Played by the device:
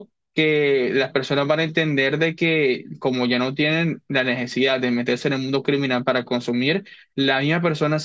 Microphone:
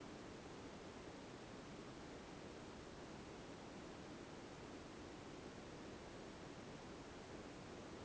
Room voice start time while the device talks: none

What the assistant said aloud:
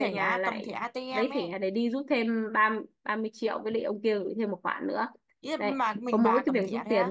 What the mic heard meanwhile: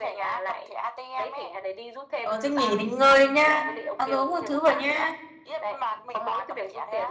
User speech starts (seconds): 2.2 s

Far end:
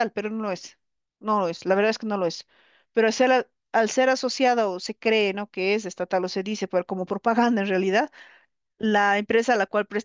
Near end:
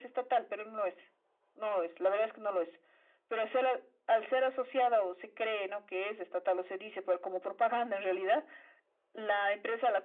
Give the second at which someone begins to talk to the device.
none

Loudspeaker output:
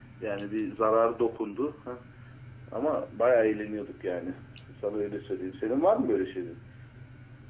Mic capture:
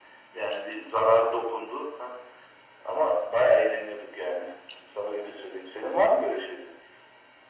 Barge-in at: none

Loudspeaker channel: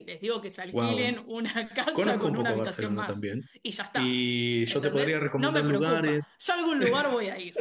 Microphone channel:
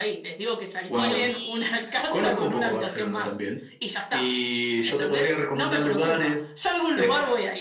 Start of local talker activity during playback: 0.9 s

